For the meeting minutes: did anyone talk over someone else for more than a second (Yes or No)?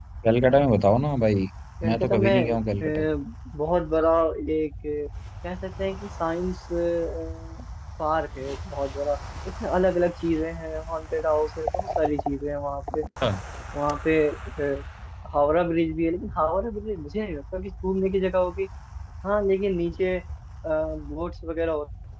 Yes